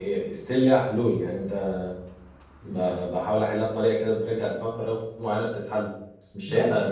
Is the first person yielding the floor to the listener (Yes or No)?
Yes